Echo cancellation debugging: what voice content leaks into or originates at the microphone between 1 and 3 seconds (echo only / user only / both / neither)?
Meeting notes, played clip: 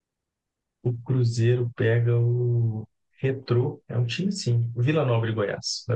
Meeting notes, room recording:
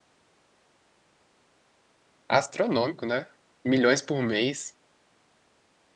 user only